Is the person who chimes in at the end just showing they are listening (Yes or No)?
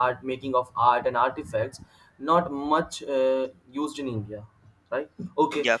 Yes